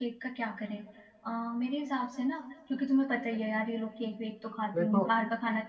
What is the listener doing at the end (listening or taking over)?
listening